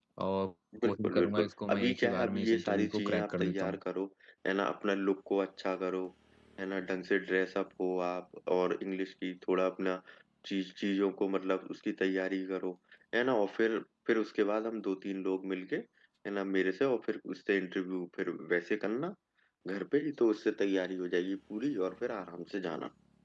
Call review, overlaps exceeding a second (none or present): present